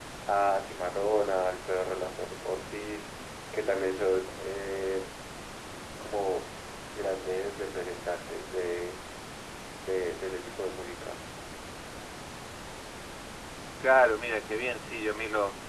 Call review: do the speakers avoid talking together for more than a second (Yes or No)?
Yes